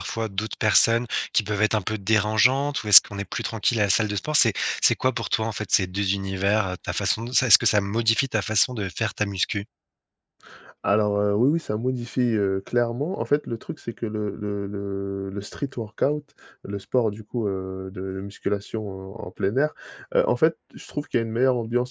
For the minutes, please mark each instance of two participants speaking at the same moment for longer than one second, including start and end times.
none

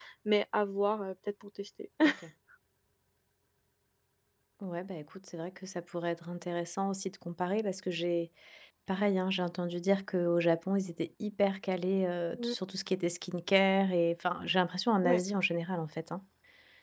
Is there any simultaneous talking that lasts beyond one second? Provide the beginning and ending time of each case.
none

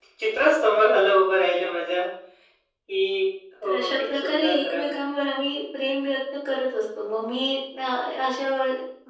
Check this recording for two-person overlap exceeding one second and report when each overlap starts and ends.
3.6-4.8

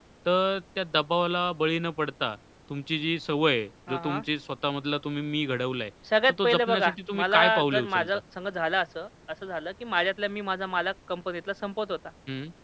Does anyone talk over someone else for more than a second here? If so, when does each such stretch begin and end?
6.3-8.1

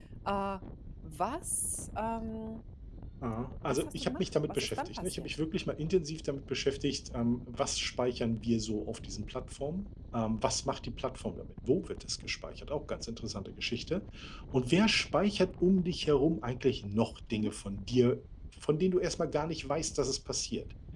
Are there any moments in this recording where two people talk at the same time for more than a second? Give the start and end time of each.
3.6-5.3

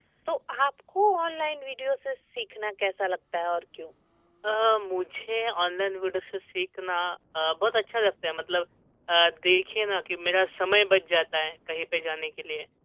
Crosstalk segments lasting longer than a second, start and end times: none

